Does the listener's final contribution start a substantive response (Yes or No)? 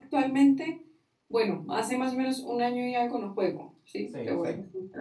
Yes